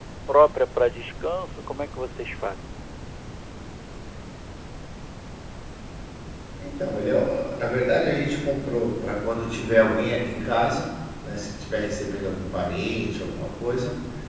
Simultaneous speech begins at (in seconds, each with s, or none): none